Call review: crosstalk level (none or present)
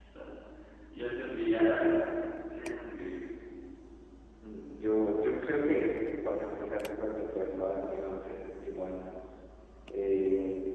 none